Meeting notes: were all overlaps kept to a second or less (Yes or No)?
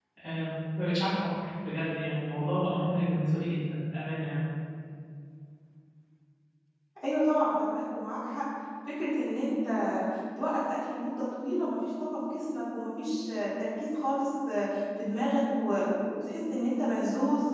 Yes